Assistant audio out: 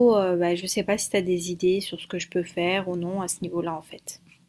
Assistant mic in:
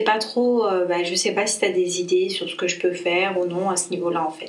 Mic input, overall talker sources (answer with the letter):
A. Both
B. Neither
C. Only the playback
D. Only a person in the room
C